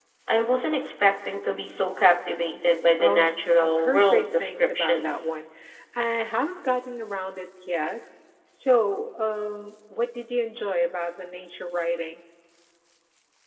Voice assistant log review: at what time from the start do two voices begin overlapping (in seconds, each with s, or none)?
3.0 s